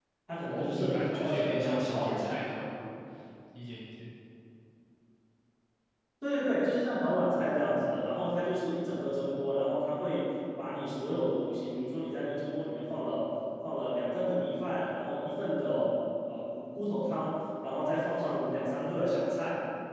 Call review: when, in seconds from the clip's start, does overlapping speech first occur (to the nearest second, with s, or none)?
1 s